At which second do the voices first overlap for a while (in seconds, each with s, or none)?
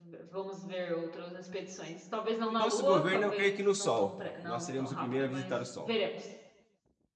2.5 s